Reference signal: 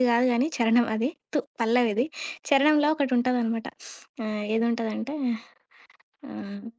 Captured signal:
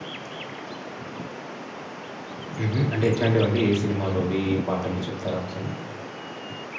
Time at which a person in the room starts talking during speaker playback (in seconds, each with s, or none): 2.6 s